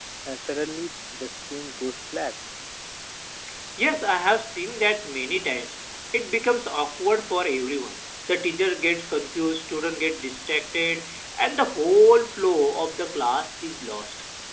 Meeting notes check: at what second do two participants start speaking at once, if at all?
none

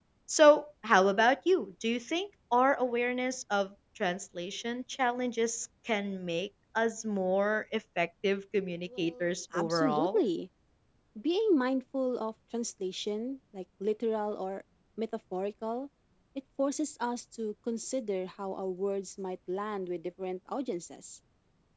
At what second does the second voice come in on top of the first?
9 s

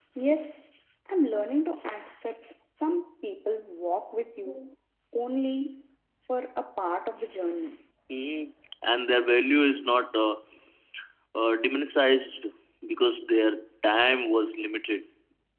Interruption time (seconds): none

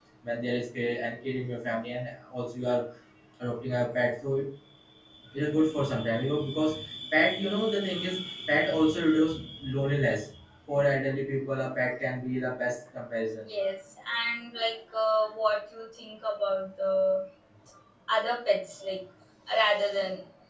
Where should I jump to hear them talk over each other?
none

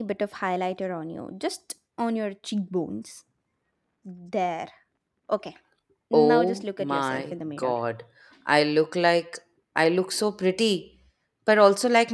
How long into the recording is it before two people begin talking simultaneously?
6 s

